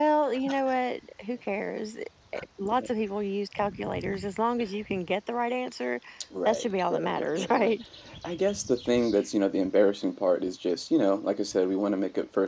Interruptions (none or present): present